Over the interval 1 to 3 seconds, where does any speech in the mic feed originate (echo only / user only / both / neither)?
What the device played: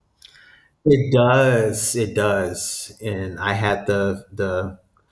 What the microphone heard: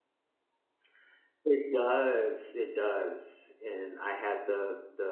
echo only